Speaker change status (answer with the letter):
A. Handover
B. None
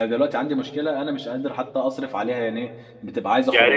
B